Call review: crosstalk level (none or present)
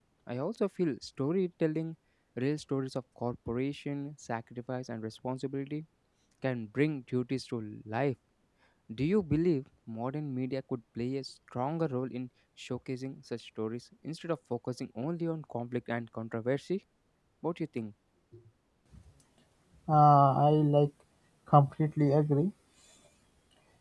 none